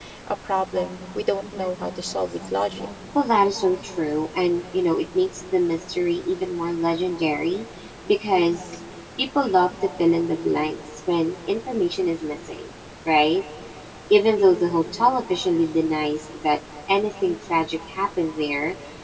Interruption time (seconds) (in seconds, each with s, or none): none